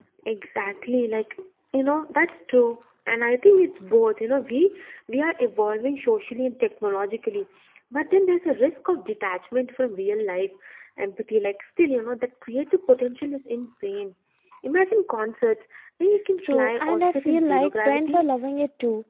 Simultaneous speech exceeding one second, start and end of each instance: 16.4-18.2

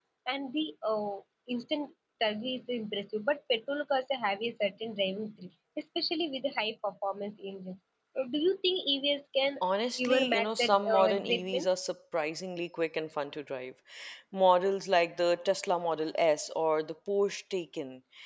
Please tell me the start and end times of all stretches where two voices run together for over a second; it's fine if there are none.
10.0-11.7

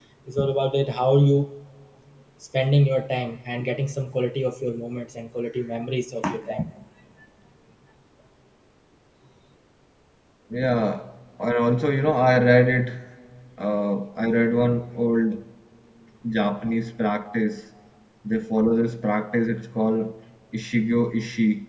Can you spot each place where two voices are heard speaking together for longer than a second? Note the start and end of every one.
none

